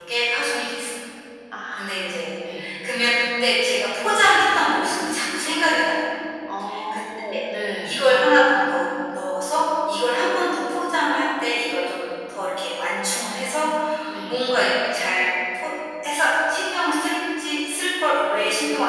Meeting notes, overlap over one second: none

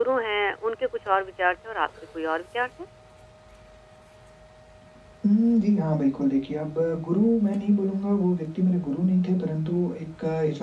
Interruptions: none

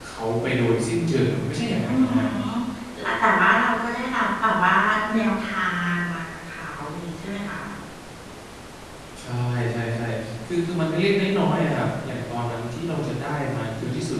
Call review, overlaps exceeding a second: none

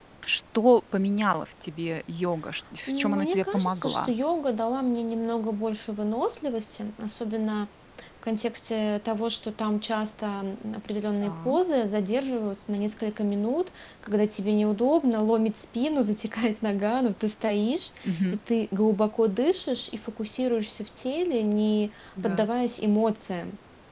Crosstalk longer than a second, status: present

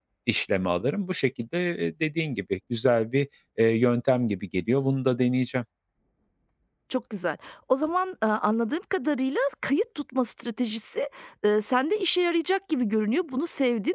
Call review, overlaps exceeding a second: none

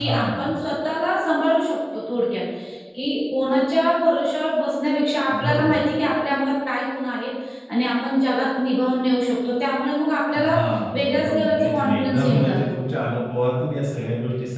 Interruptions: present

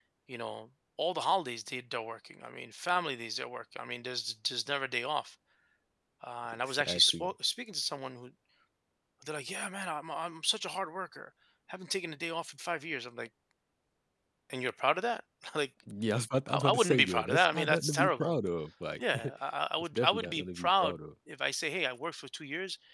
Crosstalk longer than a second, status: present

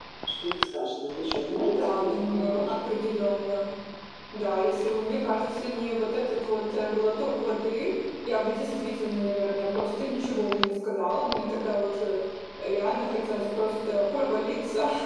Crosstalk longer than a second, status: present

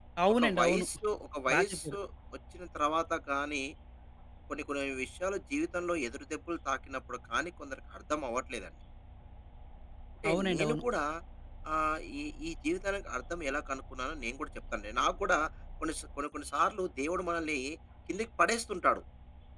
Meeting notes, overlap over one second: none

